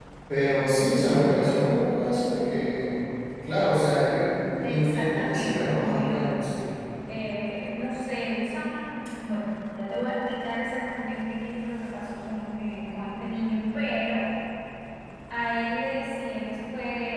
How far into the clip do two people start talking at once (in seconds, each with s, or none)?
4.6 s